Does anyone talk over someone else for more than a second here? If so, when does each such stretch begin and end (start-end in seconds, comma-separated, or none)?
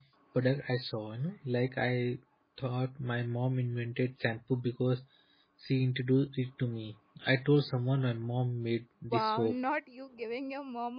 none